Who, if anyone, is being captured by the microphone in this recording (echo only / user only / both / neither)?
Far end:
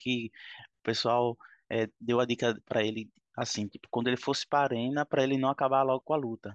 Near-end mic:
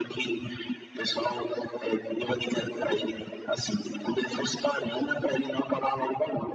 echo only